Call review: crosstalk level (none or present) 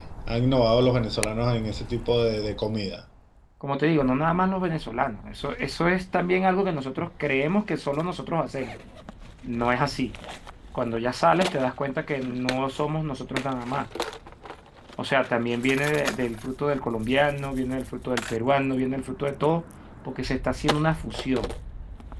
none